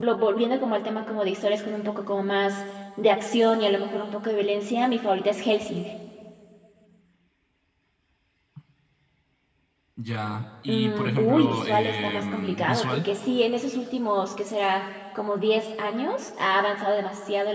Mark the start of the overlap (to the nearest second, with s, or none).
11 s